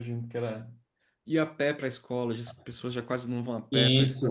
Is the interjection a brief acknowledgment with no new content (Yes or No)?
No